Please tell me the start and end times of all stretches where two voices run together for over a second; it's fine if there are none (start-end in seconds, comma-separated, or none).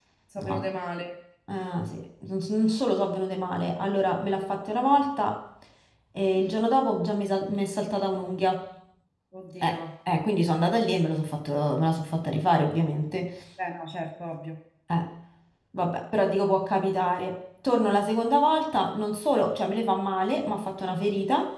none